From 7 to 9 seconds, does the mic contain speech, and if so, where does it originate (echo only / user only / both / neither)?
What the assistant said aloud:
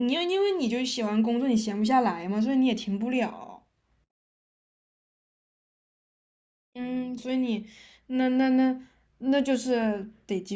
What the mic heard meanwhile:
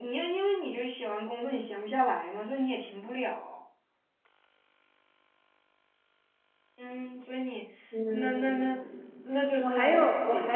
both